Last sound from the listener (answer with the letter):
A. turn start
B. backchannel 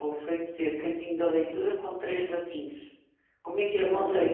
B